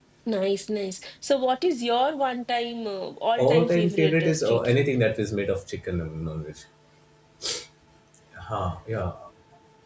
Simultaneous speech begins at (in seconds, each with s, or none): 3.4 s